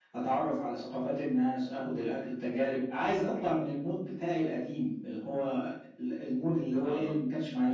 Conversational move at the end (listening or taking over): listening